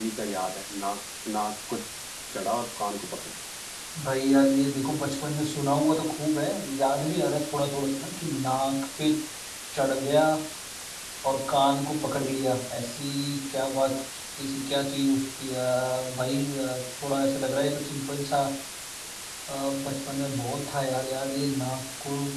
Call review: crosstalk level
none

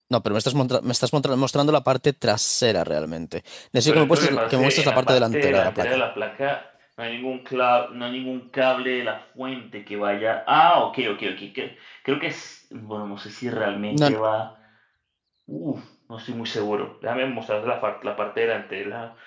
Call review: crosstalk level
present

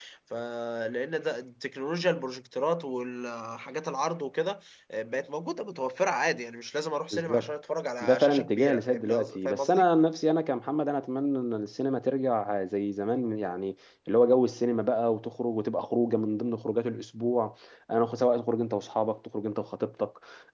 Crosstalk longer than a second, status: present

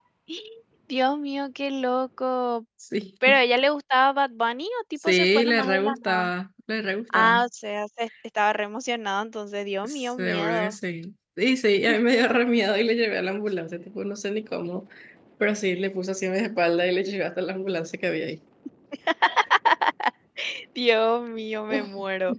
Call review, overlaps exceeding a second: present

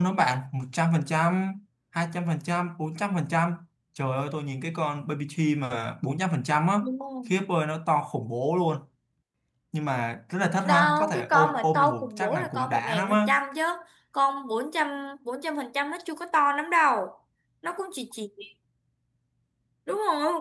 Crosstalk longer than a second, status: present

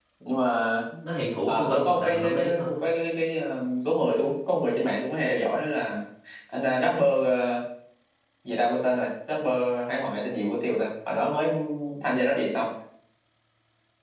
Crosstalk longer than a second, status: present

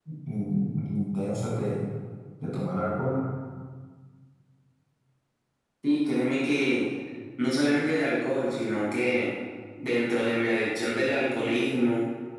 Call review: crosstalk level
none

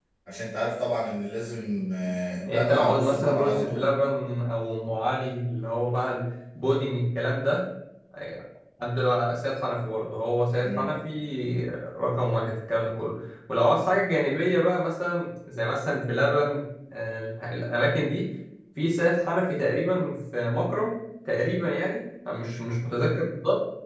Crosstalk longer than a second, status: present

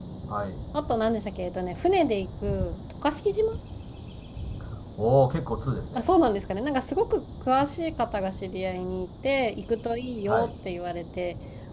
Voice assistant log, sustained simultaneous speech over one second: none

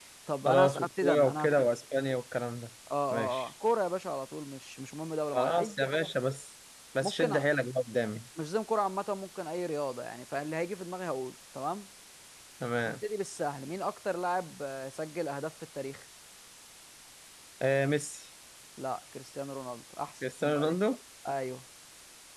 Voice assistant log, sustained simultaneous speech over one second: present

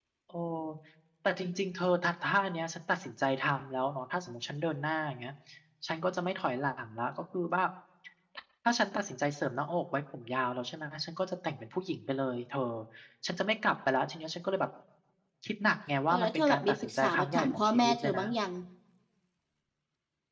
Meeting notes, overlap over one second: present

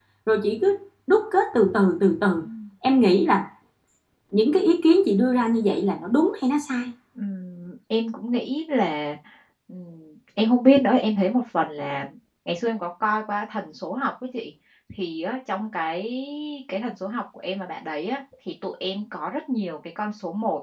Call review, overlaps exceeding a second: none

